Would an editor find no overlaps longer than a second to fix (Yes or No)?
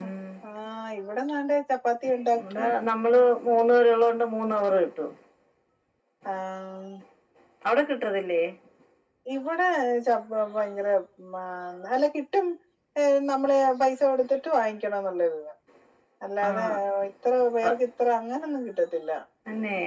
Yes